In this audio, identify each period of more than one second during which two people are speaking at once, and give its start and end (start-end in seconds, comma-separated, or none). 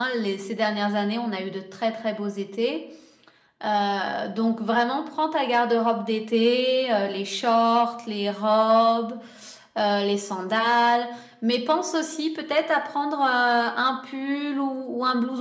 none